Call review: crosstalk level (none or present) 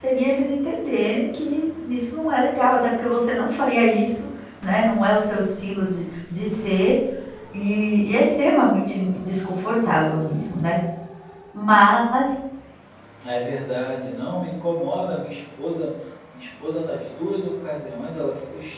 none